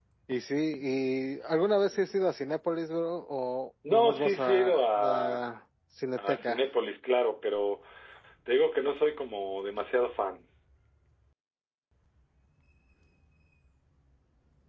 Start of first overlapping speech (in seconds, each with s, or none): 3.9 s